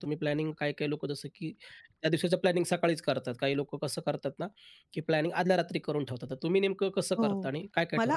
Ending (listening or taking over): taking over